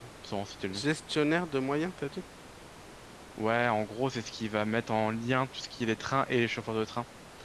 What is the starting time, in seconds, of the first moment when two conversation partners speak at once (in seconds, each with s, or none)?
none